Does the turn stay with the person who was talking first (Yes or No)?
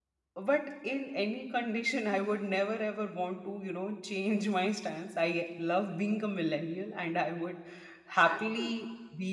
Yes